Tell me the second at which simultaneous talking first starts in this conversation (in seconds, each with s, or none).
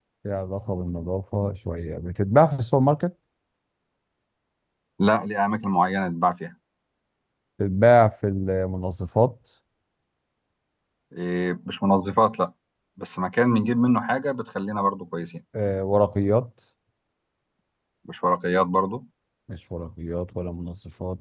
none